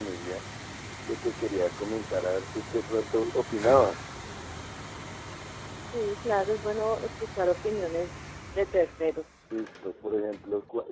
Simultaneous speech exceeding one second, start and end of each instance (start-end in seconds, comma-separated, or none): none